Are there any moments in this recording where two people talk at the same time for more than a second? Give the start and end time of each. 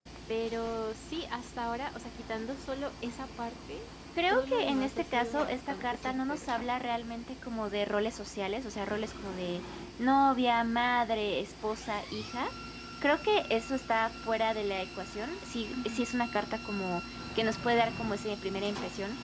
4.3-6.5

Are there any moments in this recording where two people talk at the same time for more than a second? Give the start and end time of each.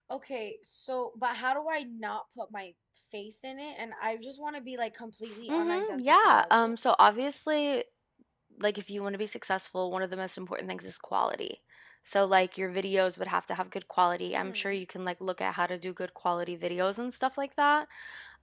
5.5-6.8

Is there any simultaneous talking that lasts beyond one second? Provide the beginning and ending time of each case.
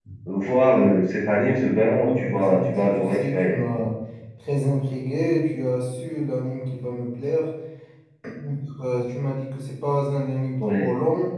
2.0-3.6

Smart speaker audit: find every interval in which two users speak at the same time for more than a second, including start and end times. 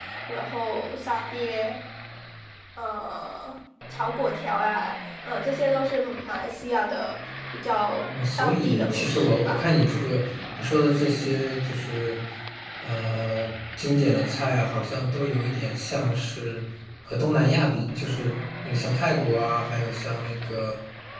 8.4-9.6

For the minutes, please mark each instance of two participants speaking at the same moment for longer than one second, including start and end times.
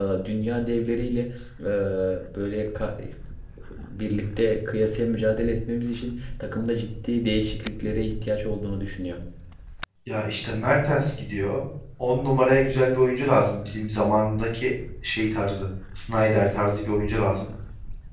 none

